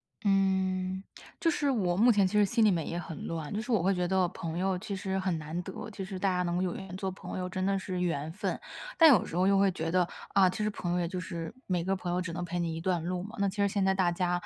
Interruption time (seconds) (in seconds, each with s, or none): none